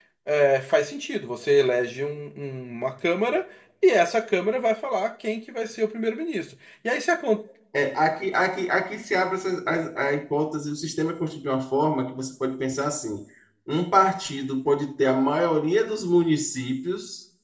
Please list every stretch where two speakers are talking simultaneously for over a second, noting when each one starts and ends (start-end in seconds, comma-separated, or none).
none